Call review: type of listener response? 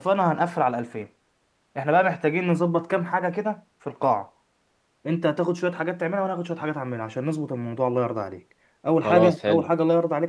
listening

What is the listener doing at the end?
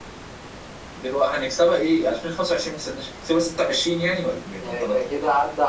taking over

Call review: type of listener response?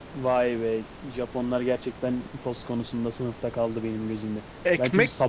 taking over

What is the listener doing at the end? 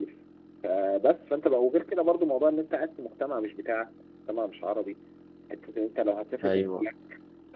listening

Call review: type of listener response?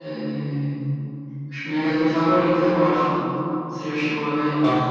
taking over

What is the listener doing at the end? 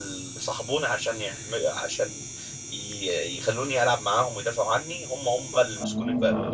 taking over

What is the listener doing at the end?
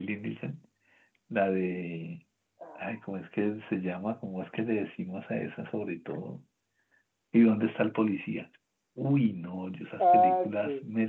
listening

